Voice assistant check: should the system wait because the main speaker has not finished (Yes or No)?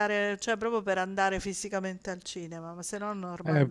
No